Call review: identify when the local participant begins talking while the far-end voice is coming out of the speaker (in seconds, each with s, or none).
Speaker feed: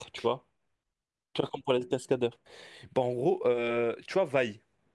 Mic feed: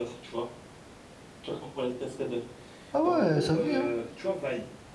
2.9 s